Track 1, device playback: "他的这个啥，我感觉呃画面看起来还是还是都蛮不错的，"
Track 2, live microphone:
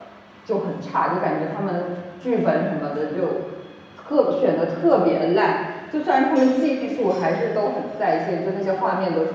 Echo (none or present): none